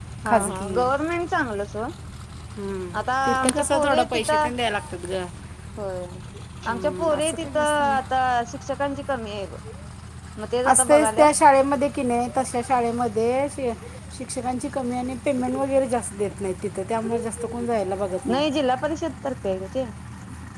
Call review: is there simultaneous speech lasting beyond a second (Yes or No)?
Yes